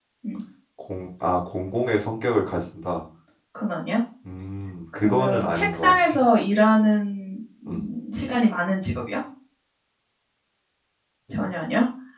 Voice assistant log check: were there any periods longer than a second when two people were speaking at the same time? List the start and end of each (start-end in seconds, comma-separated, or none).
5.0-6.2